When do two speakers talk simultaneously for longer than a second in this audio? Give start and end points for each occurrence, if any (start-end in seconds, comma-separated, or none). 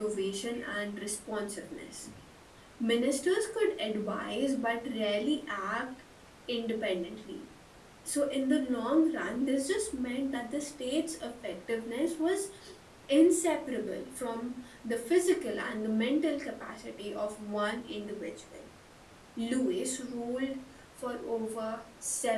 none